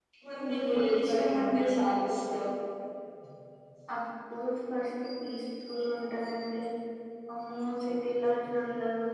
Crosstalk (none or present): present